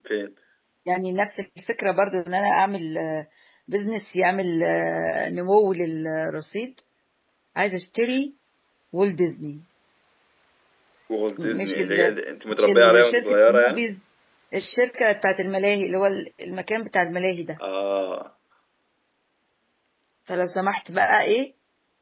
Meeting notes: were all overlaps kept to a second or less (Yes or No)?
No